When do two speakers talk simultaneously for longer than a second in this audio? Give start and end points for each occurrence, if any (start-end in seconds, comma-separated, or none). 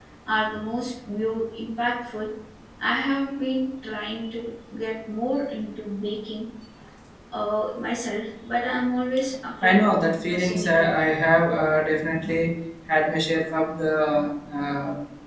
9.6-10.9